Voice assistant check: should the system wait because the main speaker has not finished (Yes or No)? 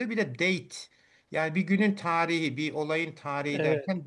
Yes